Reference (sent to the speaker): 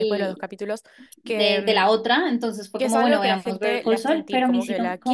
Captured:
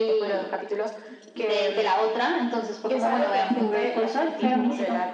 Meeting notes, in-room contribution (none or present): present